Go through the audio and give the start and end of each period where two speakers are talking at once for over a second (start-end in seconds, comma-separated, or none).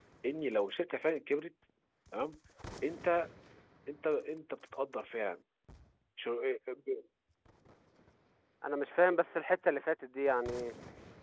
none